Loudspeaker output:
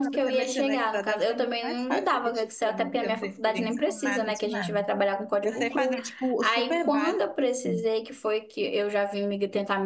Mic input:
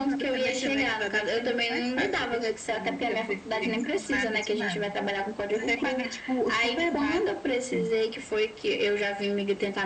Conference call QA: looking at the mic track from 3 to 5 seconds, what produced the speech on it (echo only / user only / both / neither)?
echo only